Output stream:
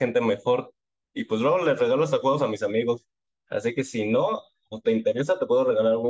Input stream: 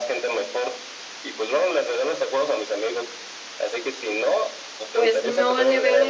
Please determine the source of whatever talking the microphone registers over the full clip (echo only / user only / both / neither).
both